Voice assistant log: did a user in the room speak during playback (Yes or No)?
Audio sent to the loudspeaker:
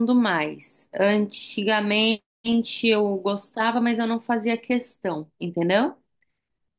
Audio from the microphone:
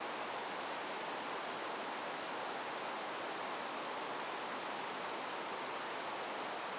No